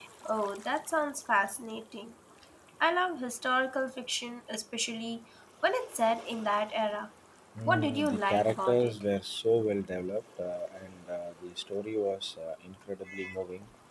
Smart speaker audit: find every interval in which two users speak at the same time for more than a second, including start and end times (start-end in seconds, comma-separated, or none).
7.7-8.9